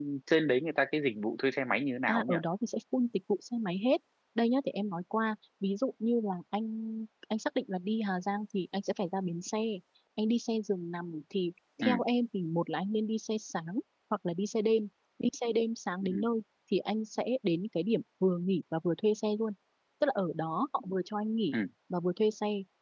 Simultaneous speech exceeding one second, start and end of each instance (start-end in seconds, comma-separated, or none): none